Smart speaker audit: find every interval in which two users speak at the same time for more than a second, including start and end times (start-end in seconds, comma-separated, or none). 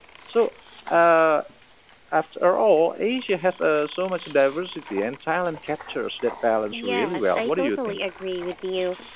6.7-8.0